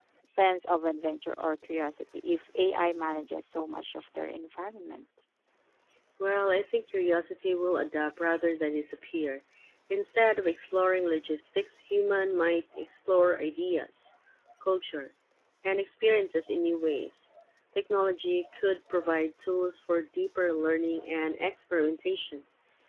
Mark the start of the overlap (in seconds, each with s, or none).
none